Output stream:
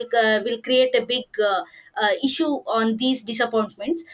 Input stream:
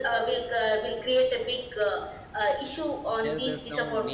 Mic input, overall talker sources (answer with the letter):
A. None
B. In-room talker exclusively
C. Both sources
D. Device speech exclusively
C